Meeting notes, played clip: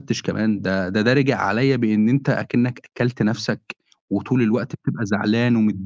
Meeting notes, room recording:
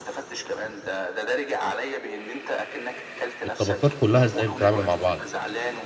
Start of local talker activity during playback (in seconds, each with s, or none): 3.4 s